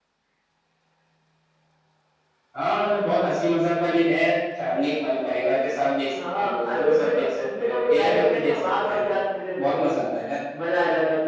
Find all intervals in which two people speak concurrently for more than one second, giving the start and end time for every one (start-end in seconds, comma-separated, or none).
6.1-9.0